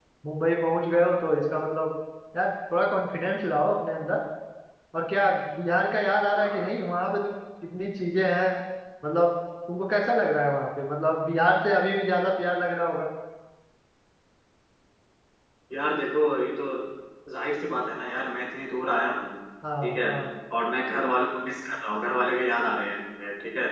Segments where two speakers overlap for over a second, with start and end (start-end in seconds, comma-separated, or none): none